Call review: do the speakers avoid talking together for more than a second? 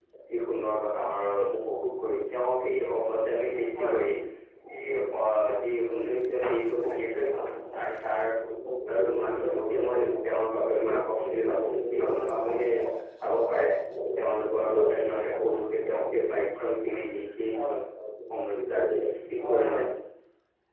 No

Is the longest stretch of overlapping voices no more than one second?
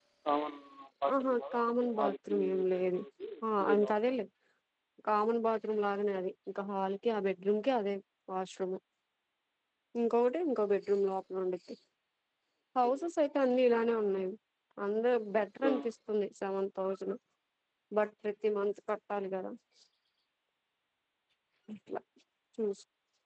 No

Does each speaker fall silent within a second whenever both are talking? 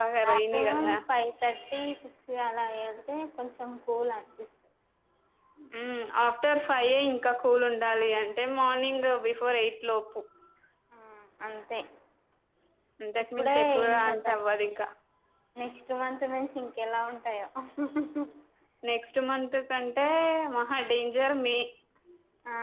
No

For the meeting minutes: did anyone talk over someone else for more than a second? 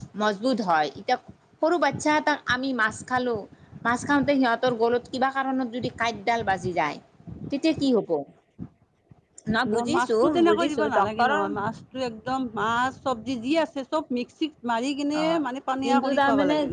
Yes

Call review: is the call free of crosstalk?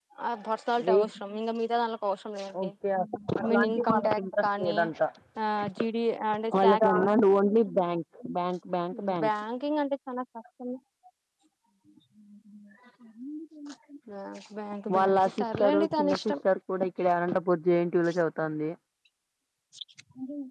No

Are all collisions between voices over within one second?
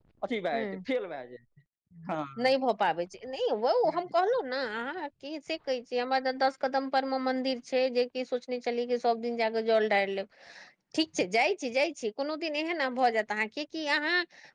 Yes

